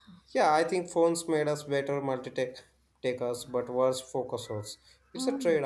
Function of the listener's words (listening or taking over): taking over